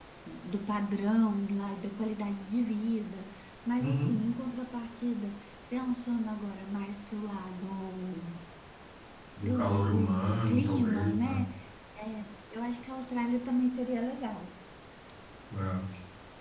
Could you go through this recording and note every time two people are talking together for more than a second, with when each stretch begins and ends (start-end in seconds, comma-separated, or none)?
9.4-11.4